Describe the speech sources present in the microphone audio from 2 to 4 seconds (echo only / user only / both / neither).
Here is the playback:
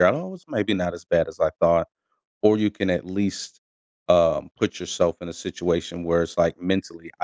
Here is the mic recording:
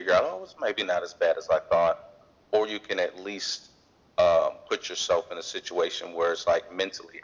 echo only